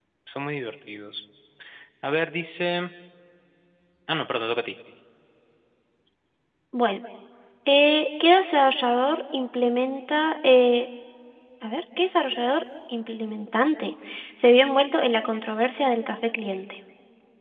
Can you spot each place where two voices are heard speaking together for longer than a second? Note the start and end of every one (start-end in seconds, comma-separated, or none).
none